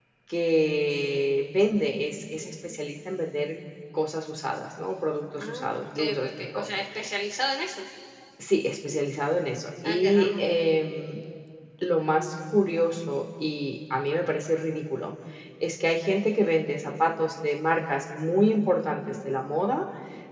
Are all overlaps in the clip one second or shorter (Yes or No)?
No